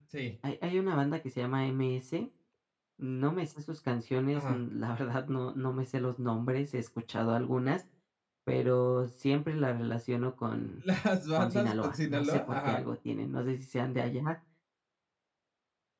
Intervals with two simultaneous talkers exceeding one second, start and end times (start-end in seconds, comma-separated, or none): 11.4-12.8